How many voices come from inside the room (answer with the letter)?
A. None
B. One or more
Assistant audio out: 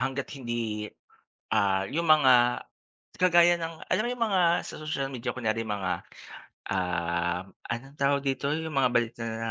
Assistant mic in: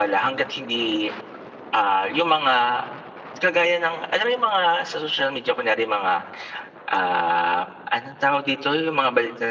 A